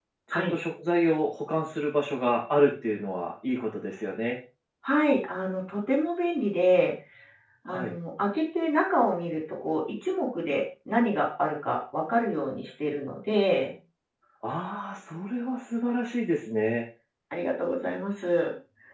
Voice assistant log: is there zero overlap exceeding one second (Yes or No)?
Yes